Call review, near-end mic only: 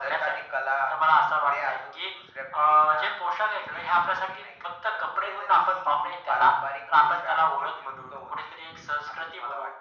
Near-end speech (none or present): none